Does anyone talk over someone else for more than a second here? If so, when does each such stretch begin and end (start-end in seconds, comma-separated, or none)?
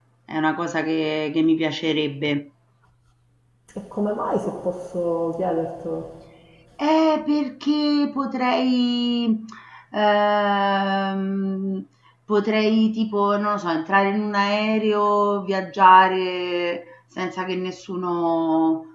none